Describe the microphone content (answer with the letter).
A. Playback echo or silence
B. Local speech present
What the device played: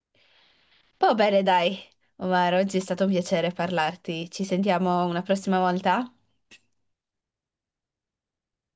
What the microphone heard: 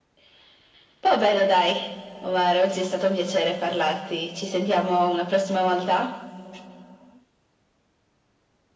A